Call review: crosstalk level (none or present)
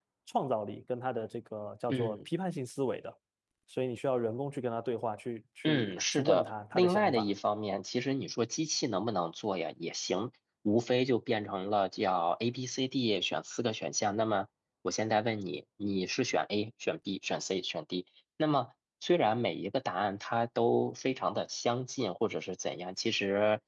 present